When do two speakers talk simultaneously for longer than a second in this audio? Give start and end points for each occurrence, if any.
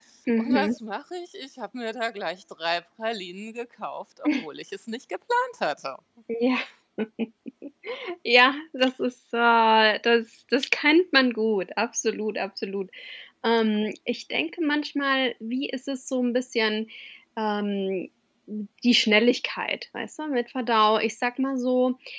none

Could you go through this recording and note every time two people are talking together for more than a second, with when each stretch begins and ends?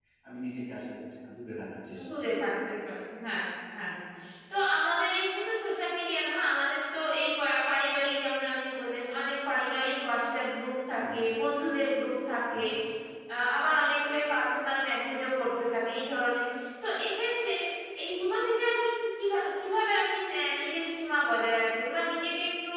none

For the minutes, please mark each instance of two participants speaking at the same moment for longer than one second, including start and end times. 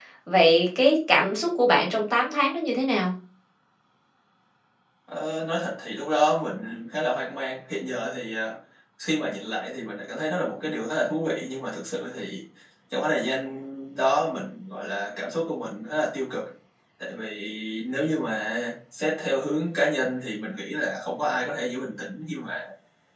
none

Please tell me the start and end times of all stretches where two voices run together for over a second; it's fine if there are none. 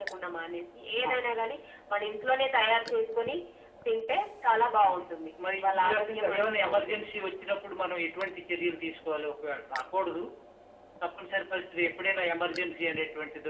5.6-7.1

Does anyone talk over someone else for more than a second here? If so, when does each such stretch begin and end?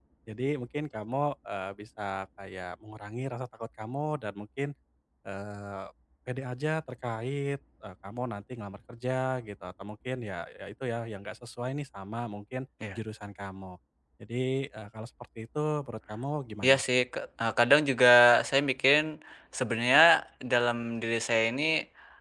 none

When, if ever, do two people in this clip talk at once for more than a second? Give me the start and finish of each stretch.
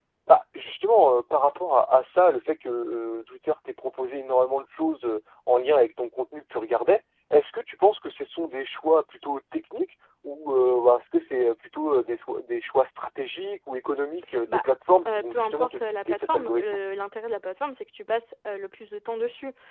15.1-16.8

